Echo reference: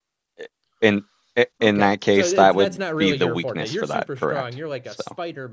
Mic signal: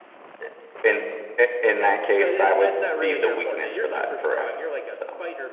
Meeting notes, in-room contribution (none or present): none